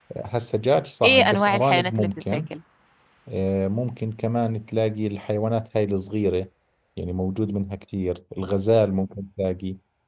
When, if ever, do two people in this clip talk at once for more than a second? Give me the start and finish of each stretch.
1.0-2.4

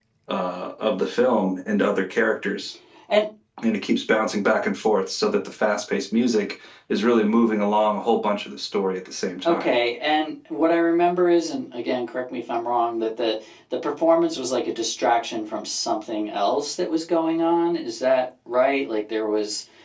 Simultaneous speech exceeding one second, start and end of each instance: none

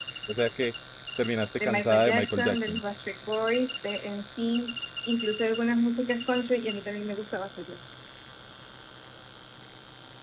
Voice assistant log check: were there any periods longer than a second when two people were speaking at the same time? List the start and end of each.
1.6-2.8

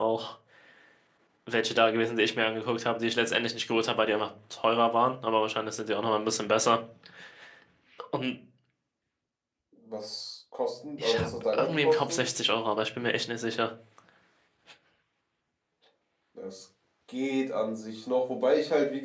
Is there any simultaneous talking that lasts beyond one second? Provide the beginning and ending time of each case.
11.0-12.2

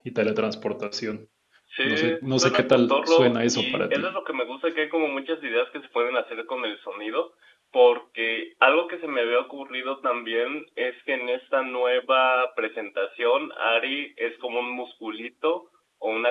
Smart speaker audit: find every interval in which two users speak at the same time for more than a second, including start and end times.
1.9-4.1

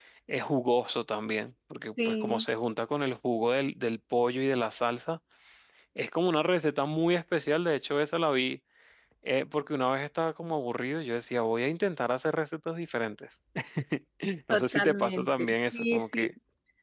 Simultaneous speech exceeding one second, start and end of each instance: 14.5-16.3

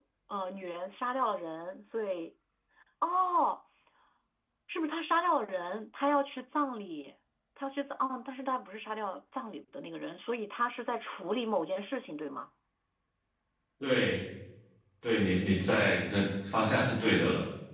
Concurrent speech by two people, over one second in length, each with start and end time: none

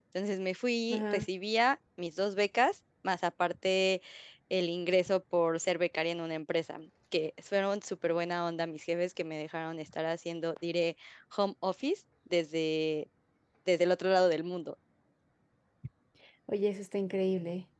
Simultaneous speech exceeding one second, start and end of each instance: none

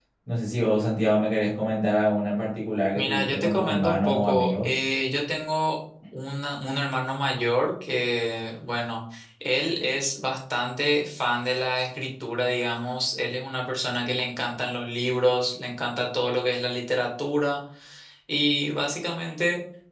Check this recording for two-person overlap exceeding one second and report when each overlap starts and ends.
3.0-4.7

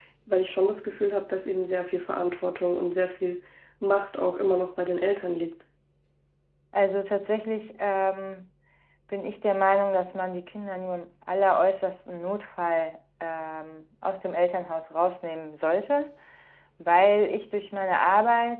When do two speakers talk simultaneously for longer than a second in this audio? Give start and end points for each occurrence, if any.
none

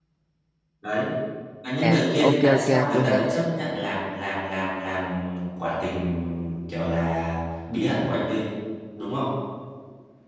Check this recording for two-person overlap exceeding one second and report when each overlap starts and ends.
1.8-3.3

